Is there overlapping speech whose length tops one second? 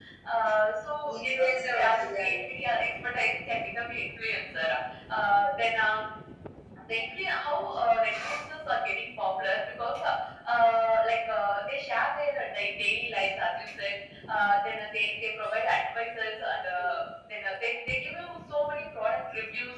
Yes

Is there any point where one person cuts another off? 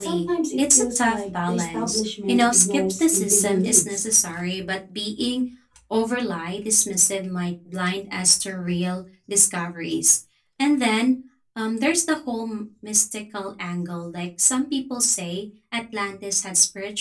Yes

